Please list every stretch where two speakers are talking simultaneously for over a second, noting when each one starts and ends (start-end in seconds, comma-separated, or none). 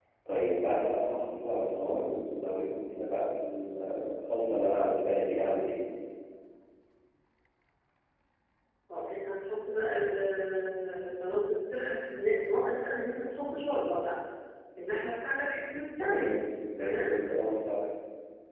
none